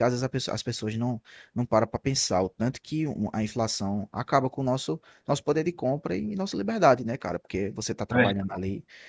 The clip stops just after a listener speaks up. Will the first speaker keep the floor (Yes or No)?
Yes